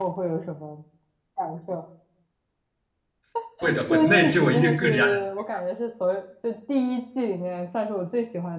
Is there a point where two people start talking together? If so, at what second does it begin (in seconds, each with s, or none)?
3.9 s